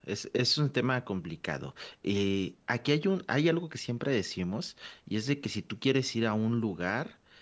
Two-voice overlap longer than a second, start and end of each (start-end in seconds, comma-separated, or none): none